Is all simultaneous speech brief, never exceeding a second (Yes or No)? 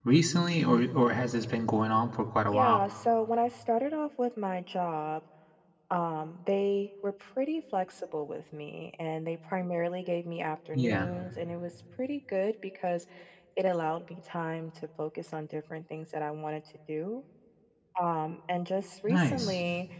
Yes